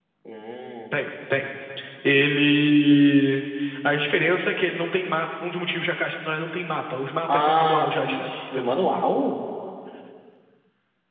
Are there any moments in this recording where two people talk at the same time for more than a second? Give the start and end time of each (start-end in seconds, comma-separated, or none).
7.4-8.7